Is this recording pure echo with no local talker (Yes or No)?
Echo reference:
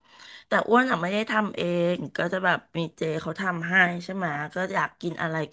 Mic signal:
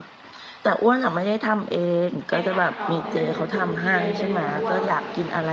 No